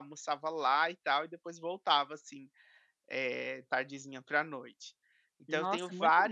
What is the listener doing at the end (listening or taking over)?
taking over